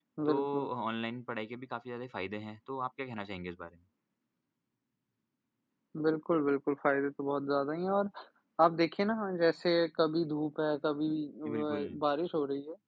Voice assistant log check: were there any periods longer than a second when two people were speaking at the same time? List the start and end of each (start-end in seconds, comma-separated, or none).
none